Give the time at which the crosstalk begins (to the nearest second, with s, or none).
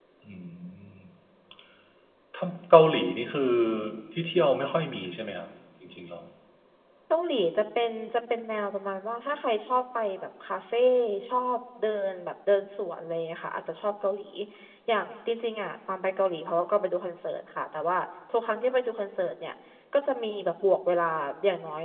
none